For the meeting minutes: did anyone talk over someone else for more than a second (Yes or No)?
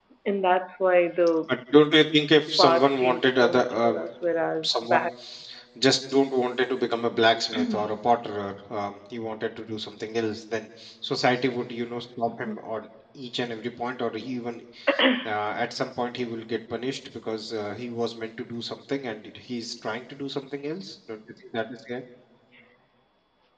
Yes